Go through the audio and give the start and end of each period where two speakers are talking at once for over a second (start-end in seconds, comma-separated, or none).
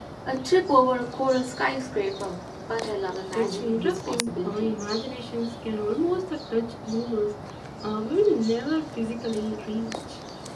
3.4-4.7